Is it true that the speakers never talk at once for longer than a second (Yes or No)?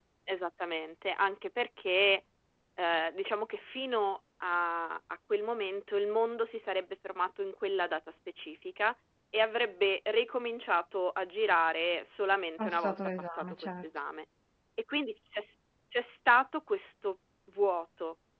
No